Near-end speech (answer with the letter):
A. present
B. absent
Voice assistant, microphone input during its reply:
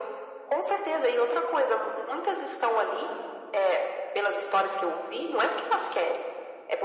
B